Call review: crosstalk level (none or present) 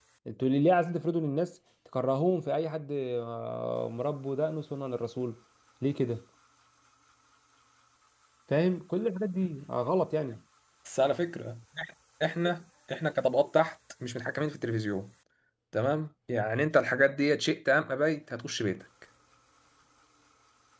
none